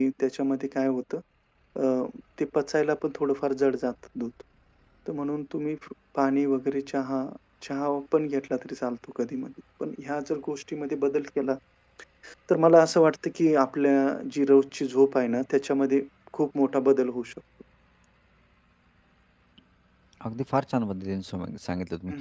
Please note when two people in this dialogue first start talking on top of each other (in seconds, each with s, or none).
none